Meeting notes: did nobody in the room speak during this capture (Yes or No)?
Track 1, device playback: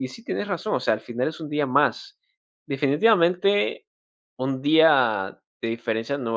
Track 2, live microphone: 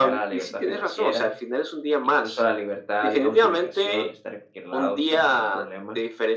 No